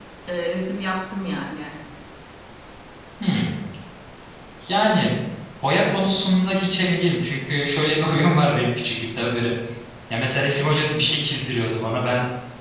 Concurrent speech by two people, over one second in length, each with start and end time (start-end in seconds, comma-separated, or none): none